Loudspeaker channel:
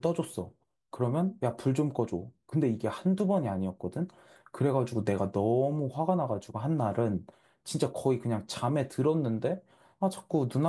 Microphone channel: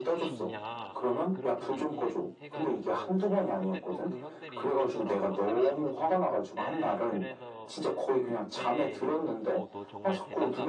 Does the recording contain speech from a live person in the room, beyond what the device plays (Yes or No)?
Yes